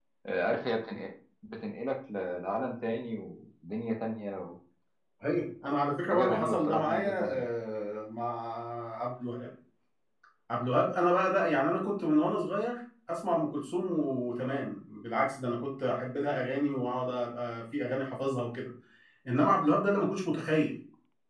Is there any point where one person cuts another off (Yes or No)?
Yes